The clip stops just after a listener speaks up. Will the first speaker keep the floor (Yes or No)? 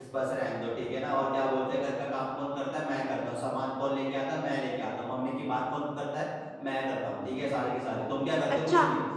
No